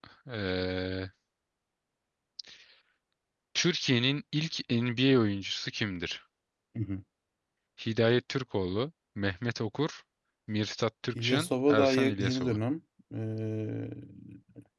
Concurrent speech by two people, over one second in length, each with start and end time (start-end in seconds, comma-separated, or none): 11.2-12.6